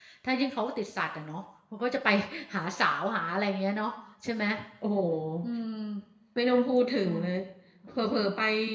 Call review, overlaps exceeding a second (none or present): none